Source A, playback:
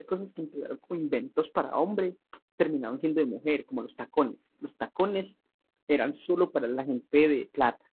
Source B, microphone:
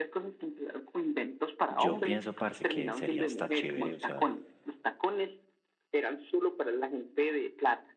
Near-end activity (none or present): present